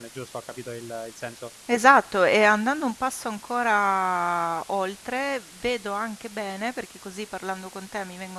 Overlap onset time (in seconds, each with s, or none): none